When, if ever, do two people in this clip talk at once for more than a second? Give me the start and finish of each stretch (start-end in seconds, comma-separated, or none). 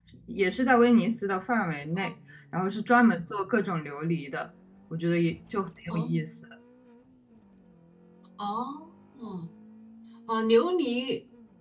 none